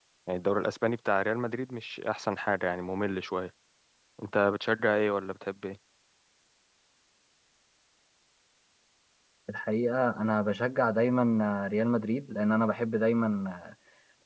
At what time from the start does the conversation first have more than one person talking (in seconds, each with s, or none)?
none